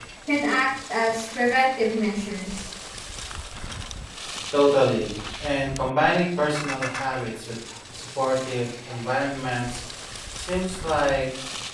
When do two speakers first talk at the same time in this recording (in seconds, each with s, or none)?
none